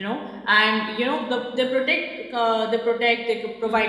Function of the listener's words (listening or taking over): listening